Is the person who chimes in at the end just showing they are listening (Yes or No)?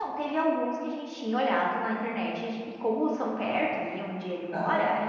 Yes